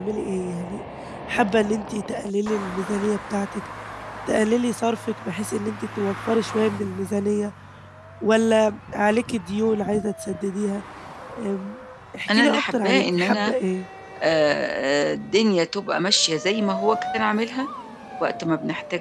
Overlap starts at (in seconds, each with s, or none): 12.3 s